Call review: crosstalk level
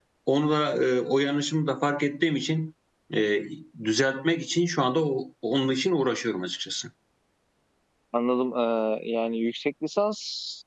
none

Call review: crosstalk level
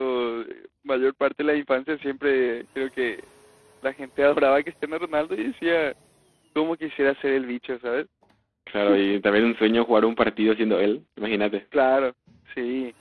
none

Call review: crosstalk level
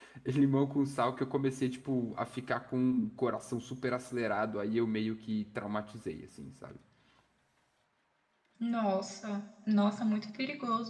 none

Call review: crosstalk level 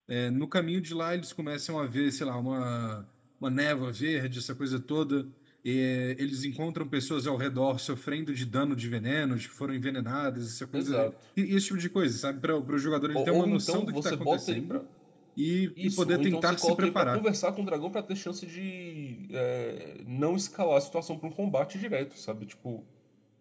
present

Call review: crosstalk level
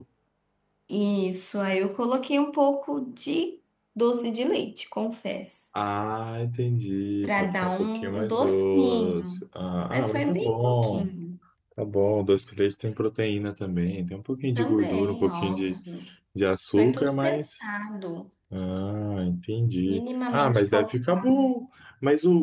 present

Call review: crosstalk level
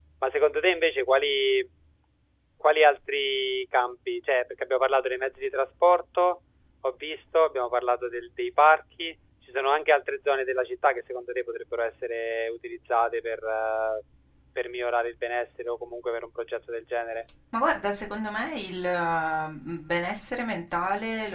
none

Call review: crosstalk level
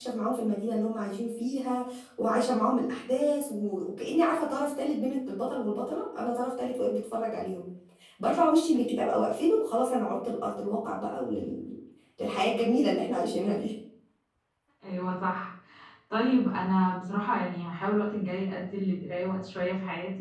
none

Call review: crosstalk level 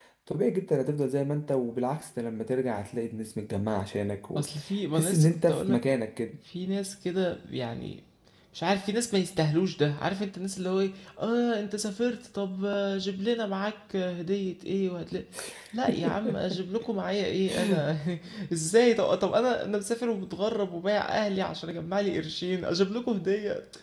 present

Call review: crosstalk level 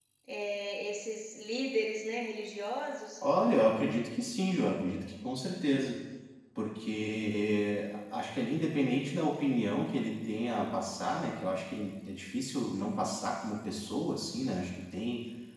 none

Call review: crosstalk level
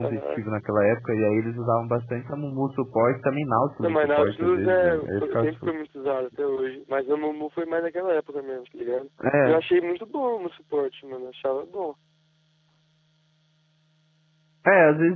present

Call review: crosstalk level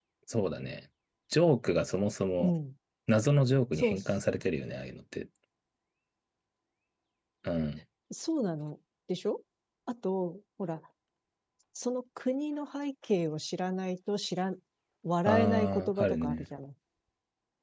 present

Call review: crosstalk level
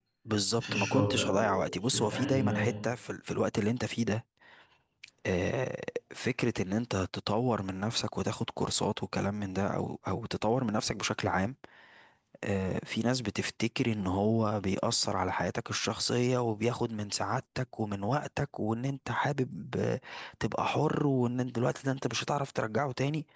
present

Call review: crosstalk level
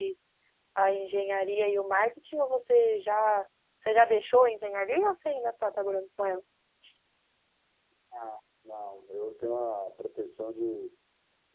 none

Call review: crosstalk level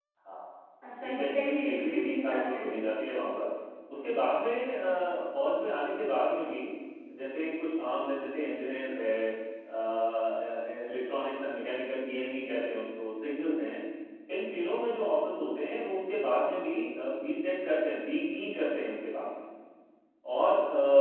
present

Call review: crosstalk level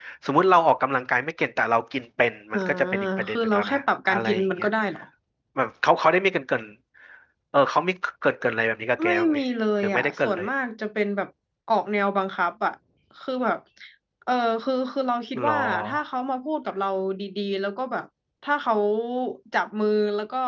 present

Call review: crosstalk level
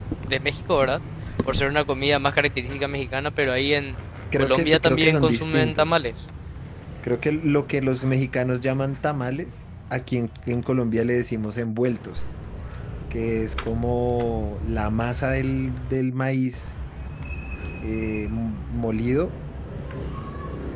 present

